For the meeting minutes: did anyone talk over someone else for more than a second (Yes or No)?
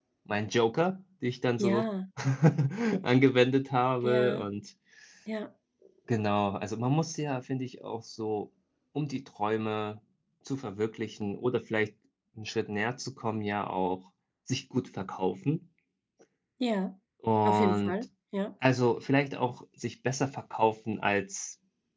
No